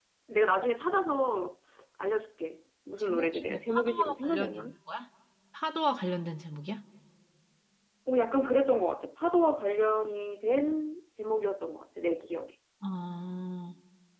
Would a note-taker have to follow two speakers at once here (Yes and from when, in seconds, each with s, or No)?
Yes, from 3.0 s